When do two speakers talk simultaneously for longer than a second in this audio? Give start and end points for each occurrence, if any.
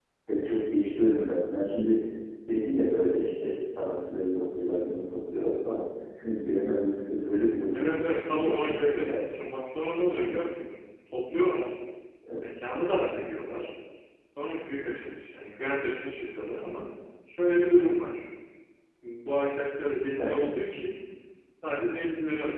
7.7-9.1

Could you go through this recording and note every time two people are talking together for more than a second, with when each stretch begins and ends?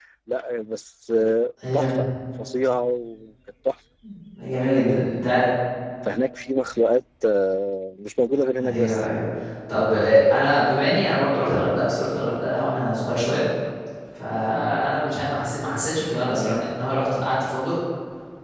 none

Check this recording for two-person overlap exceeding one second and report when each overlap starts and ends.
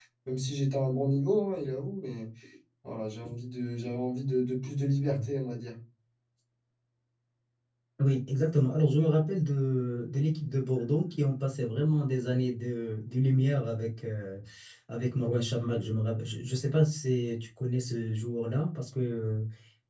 none

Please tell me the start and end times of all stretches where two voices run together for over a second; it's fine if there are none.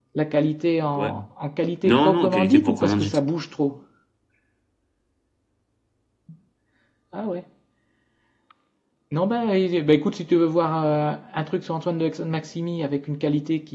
1.8-3.2

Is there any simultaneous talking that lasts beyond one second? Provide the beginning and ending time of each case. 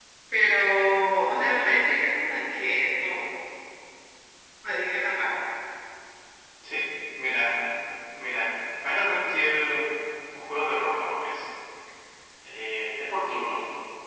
none

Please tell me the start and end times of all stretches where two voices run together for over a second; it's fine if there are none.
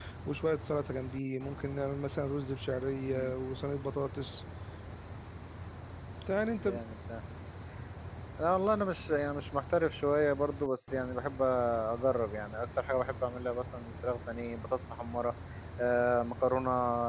none

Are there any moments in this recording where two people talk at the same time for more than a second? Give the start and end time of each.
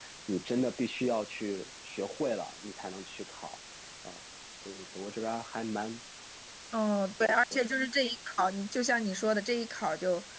none

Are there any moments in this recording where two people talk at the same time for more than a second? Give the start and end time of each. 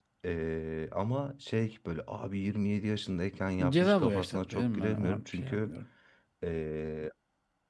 3.7-5.7

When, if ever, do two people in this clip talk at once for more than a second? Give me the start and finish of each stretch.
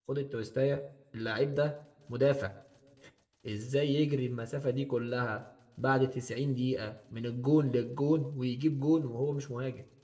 none

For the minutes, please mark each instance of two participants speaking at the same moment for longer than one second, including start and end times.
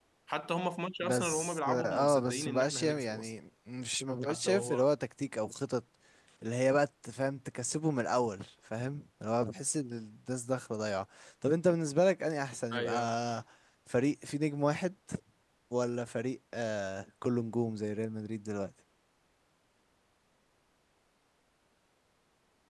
1.0-3.3

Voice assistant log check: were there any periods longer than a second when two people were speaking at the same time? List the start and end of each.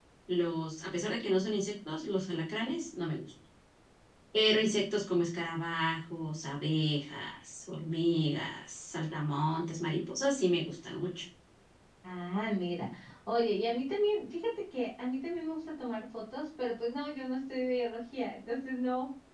none

